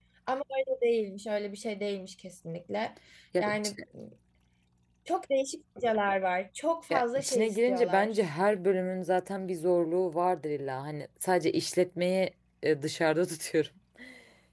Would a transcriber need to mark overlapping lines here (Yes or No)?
Yes